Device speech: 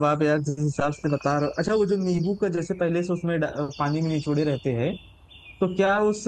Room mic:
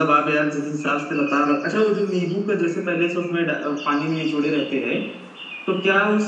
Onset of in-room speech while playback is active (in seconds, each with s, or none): none